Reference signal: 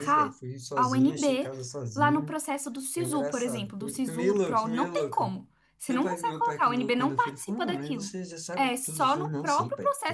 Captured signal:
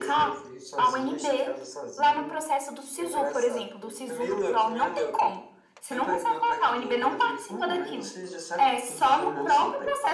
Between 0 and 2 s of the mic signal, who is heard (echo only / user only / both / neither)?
echo only